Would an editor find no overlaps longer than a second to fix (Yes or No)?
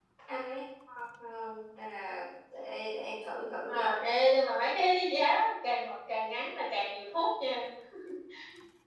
Yes